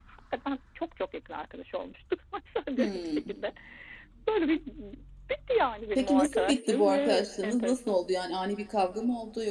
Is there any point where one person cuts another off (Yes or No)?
Yes